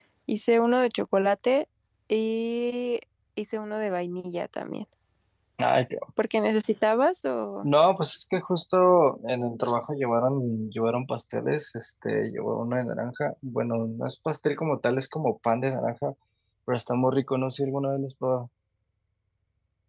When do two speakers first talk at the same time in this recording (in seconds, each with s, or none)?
none